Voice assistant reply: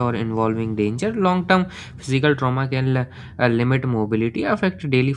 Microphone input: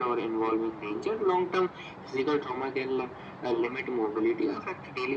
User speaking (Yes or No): No